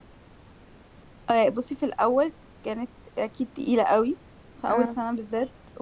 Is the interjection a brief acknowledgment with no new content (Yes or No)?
Yes